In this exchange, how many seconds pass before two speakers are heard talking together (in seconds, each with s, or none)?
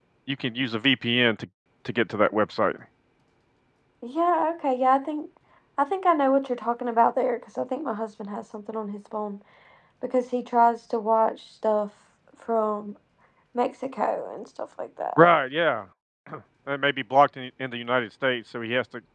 none